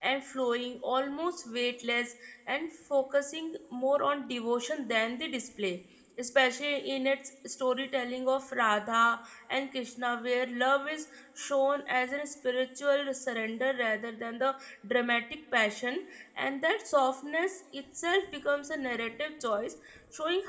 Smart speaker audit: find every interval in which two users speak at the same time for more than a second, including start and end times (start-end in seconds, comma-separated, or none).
none